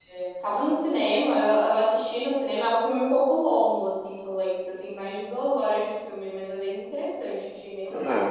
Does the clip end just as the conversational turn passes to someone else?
Yes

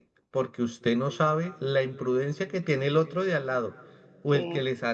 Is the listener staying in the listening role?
Yes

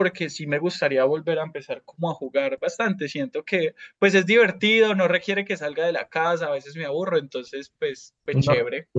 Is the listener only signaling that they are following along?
No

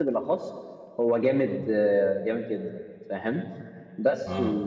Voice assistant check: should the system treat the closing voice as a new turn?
No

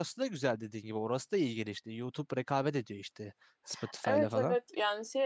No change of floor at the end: No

